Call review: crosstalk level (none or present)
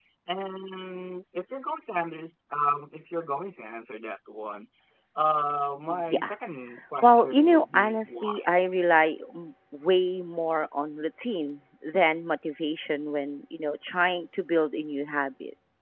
present